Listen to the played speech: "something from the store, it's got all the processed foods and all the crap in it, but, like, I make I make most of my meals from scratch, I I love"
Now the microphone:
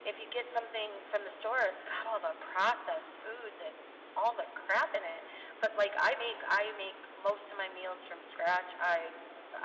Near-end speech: none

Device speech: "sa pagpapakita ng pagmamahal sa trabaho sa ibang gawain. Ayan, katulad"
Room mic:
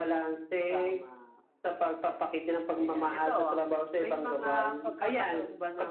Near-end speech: present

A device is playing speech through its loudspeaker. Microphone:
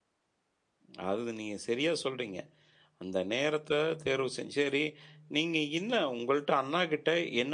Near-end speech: present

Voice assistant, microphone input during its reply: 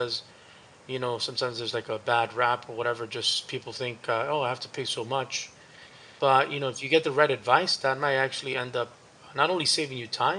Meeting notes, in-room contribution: present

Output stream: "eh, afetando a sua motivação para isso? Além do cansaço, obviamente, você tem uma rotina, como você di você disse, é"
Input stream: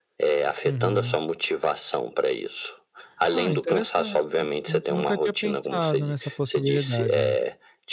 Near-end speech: present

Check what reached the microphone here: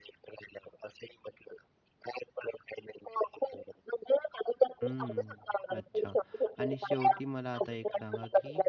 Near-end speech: present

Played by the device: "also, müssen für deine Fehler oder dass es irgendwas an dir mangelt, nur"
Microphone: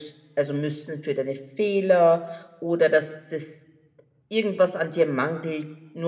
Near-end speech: none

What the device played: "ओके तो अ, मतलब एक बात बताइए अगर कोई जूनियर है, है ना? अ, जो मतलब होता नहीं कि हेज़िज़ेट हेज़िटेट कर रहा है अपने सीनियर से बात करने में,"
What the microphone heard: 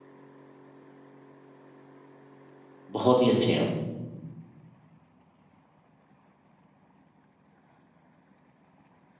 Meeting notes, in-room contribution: present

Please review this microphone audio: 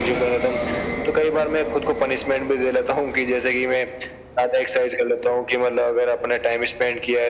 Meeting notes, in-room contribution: none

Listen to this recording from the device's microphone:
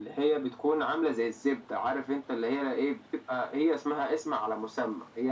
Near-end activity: none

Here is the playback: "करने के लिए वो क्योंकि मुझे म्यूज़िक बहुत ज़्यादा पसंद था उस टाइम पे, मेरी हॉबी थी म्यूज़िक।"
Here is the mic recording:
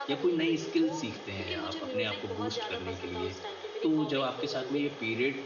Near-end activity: present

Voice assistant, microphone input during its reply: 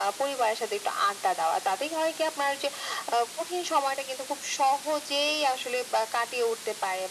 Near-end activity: none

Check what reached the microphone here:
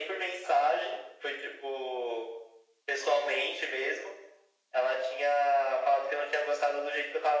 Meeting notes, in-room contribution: none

